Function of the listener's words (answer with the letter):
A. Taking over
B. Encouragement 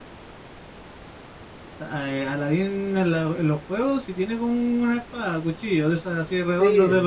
A